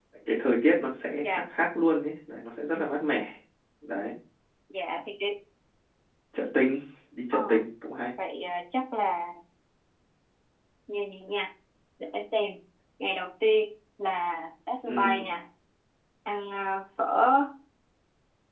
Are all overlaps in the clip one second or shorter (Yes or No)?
Yes